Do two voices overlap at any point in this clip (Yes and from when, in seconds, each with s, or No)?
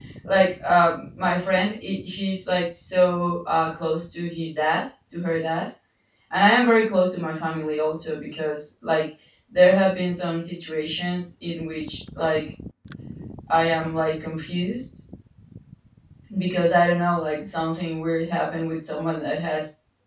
No